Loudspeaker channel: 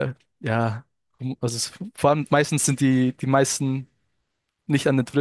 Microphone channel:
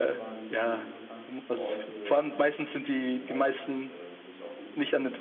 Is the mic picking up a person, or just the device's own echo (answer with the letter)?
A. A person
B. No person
A